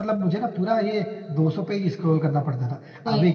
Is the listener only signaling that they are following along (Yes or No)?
Yes